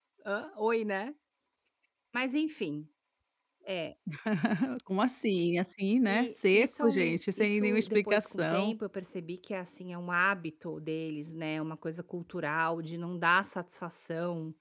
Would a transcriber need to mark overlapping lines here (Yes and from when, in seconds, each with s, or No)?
Yes, from 6.1 s